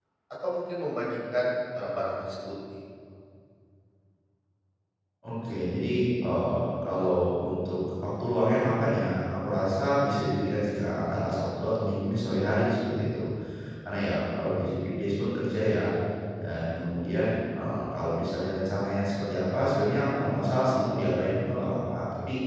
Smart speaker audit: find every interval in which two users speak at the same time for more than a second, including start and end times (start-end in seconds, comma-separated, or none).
none